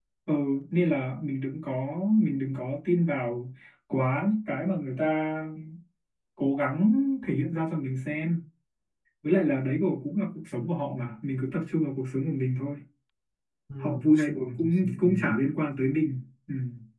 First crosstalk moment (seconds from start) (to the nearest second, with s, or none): 14 s